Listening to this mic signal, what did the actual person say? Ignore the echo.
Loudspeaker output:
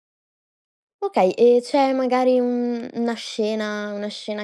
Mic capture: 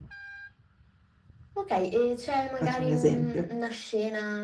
faccio un esempio.

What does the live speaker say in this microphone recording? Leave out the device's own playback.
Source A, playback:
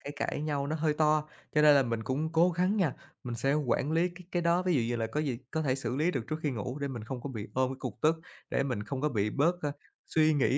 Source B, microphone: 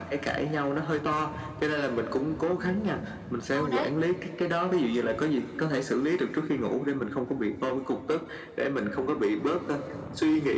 Ừm, ừ, đấy,

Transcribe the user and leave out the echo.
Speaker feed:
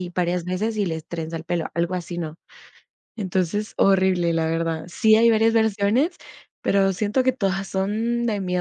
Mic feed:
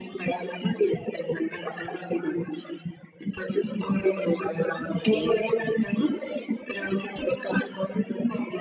okey,

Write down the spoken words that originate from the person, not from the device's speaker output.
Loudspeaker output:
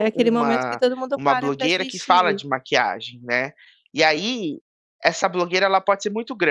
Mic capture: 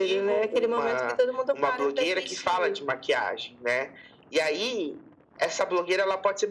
none

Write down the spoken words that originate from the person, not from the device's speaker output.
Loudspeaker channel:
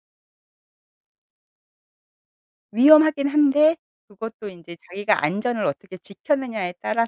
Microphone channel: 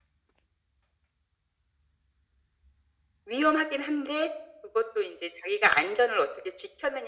none

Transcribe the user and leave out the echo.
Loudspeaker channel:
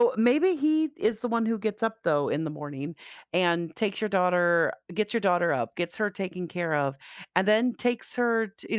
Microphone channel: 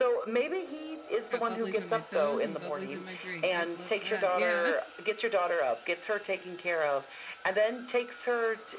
got bubblies on my toes and bubblies in my drink. I'd love that. Yeah.

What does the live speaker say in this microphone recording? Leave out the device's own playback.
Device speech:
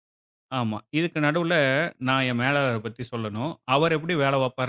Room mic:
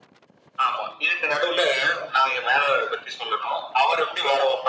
none

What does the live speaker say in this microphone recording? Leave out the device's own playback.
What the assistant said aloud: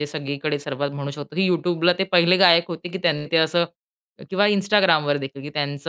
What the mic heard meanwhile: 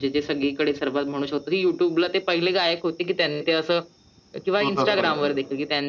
स्वतःच कॉलेजमध्ये आहे.

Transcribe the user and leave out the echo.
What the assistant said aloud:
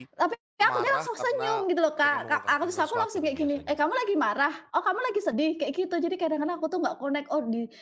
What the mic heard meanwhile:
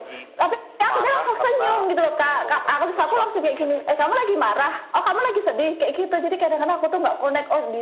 none

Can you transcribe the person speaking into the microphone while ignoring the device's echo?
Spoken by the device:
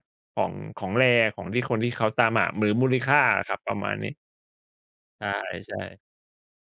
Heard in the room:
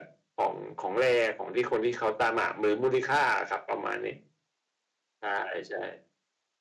none

